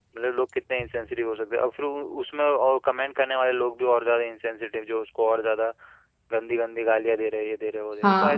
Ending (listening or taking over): taking over